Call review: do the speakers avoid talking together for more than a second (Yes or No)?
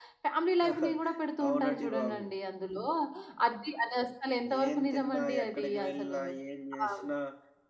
No